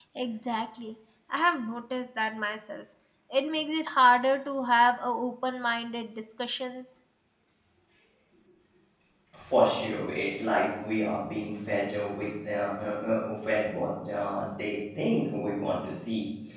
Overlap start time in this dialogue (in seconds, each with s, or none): none